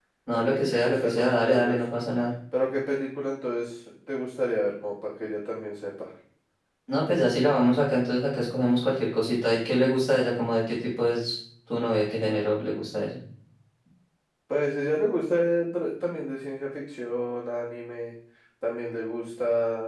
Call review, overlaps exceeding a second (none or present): present